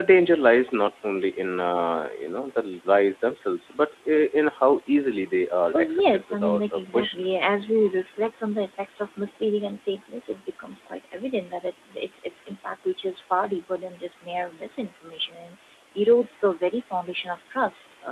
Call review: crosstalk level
present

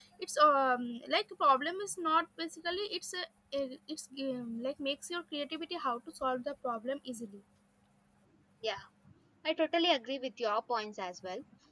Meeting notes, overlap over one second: none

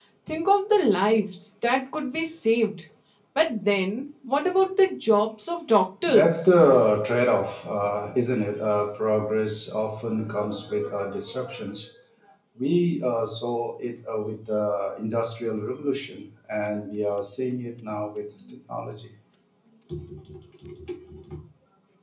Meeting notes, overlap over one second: none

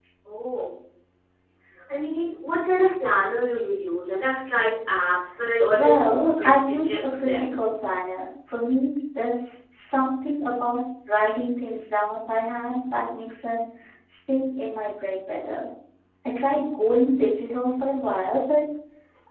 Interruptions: present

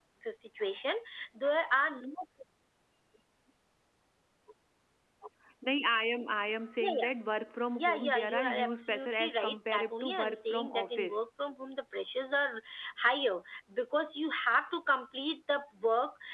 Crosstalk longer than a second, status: present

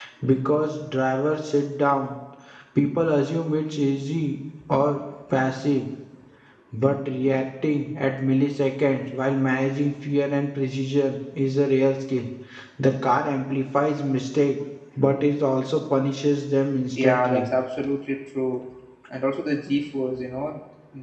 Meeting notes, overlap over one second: none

